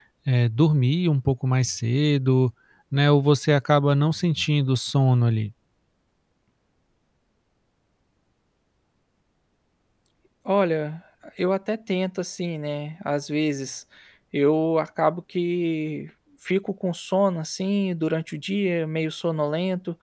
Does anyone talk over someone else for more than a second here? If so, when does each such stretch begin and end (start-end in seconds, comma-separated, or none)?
none